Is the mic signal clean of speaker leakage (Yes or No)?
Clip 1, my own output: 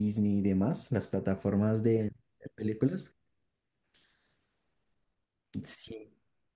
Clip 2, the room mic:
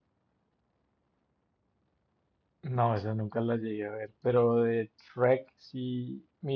Yes